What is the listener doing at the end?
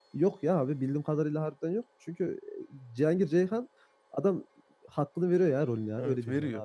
taking over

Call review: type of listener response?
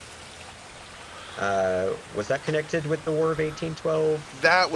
taking over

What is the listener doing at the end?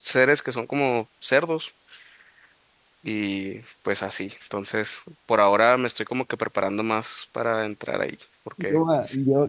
taking over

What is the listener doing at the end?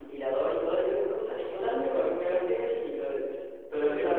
listening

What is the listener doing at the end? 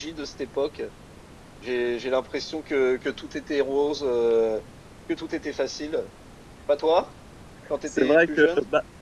taking over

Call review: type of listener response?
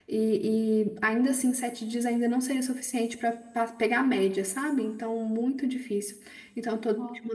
listening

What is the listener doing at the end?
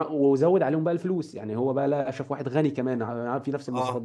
listening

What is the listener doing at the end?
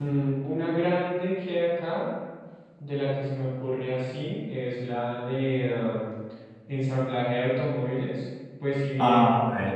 listening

